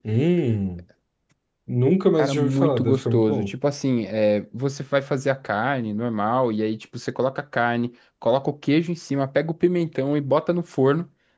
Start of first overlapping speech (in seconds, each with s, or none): 2.2 s